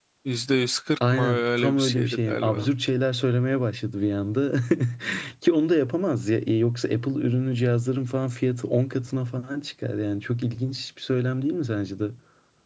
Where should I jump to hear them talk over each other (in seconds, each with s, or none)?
1.1 s